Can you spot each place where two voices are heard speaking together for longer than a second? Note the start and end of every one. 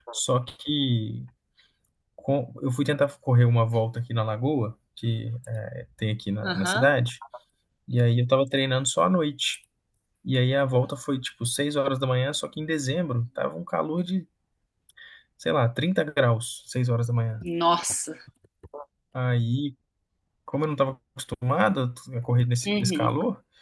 none

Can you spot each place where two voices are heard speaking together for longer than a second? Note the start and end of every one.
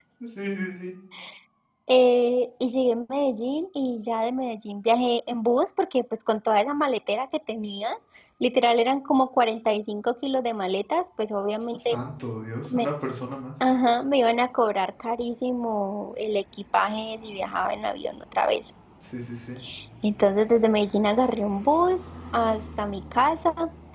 none

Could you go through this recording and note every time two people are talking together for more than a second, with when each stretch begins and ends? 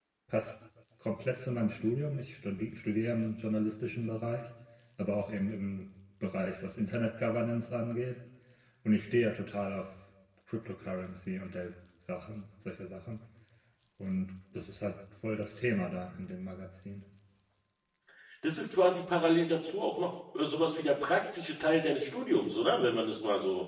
none

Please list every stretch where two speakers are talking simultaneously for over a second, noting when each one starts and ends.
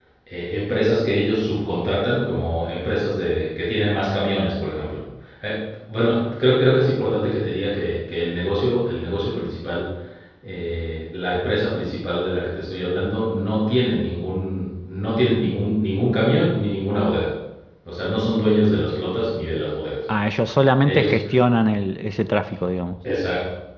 none

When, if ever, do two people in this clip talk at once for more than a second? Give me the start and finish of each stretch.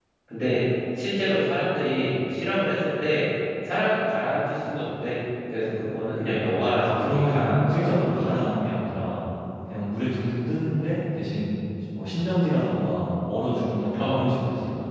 6.8-8.3

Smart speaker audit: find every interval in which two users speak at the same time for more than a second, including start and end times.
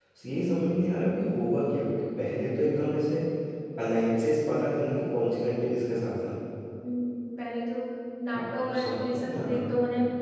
8.4-9.6

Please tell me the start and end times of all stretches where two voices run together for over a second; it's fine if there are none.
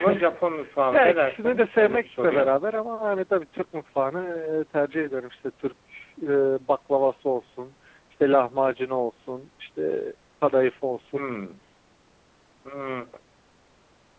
0.9-2.5

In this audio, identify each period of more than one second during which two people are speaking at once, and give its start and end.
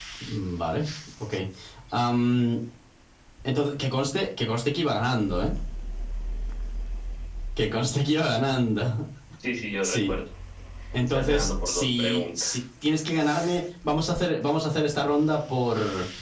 11.1-12.6

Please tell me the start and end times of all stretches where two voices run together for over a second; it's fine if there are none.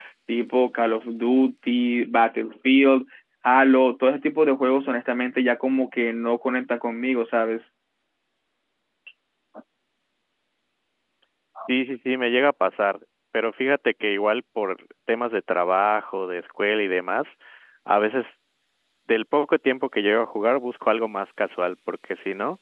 none

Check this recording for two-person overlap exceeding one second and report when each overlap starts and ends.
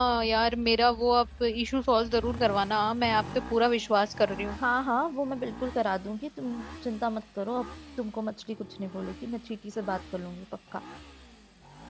none

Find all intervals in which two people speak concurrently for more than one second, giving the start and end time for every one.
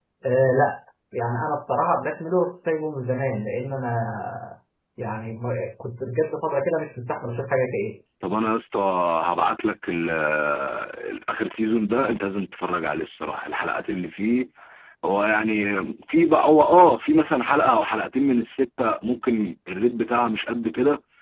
none

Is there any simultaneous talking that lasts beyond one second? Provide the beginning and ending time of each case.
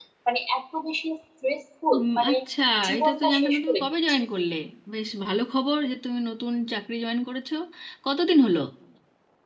3.0-4.2

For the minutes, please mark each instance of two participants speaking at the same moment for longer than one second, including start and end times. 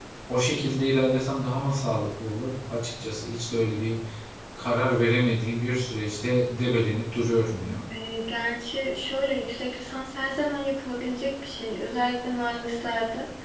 none

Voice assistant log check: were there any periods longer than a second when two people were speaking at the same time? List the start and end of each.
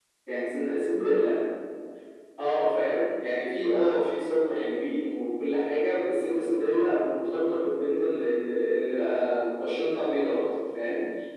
none

